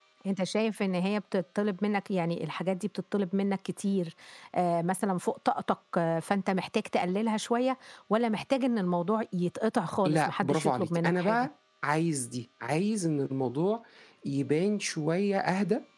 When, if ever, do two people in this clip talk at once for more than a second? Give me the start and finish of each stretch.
10.1-11.5

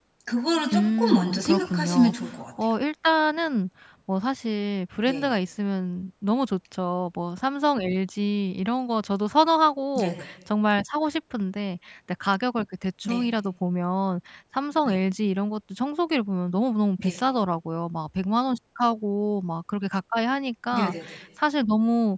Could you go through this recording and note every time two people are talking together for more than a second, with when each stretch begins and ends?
0.7-2.1

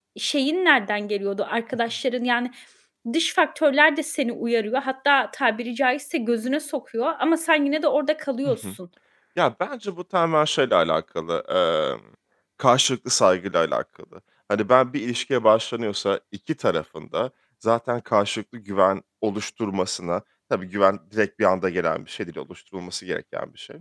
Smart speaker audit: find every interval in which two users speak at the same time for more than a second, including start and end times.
none

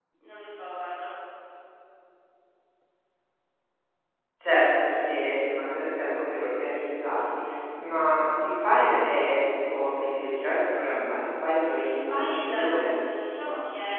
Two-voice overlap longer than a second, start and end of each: 11.6-12.9

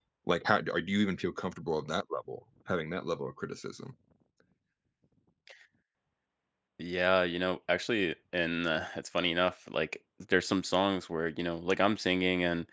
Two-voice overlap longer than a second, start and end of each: none

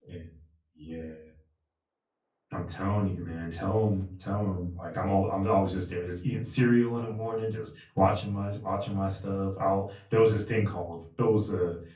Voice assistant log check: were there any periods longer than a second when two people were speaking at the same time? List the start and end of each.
none

